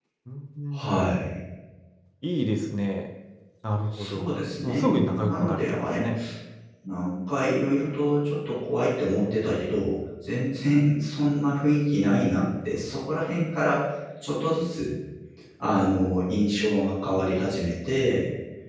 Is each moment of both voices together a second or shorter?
No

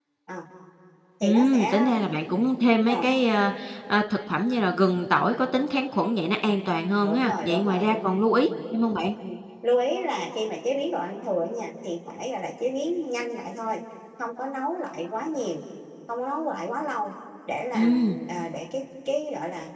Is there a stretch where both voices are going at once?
Yes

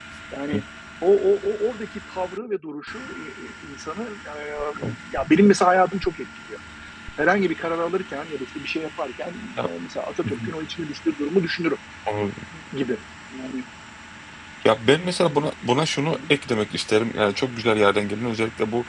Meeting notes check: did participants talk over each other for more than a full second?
No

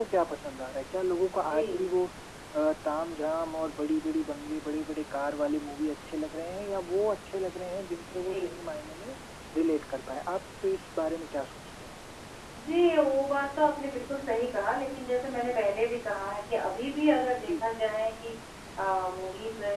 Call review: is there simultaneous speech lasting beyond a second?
No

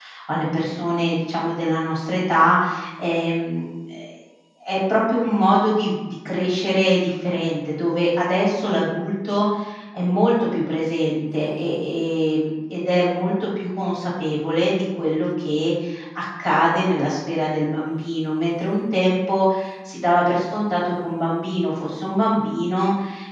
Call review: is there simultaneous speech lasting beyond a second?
No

